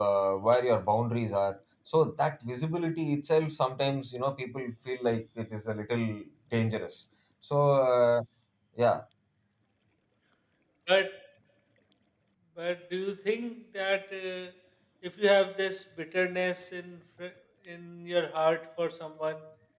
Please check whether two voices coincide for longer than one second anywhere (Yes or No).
No